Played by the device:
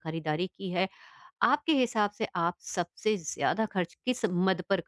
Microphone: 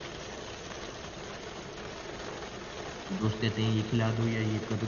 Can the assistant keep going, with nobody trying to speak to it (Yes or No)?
No